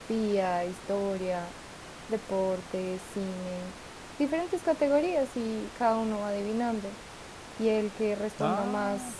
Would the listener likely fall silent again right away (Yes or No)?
Yes